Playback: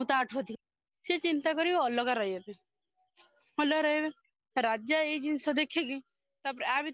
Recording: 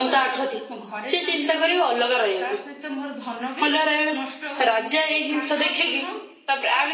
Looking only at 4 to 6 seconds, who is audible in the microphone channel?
both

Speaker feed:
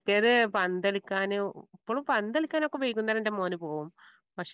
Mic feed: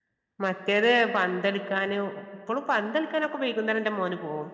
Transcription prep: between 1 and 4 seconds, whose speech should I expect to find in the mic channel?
echo only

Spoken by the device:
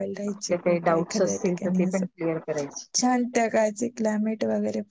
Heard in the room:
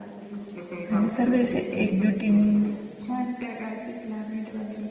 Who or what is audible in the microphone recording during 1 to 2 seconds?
both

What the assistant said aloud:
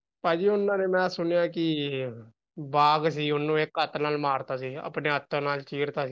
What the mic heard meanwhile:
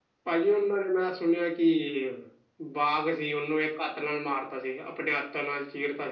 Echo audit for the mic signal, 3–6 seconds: echo only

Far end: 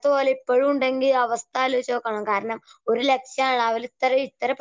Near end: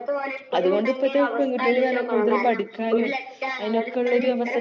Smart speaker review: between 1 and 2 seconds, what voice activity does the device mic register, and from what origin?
both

